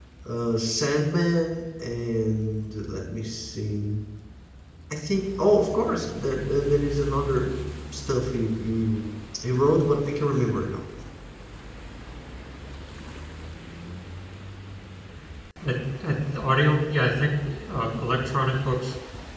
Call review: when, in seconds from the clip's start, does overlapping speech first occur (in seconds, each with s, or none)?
none